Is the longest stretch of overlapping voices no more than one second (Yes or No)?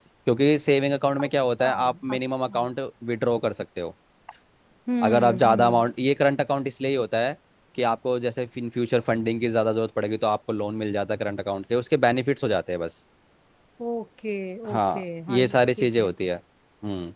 No